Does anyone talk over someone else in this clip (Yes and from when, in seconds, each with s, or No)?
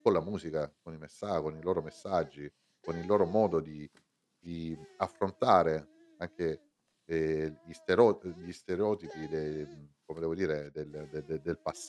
No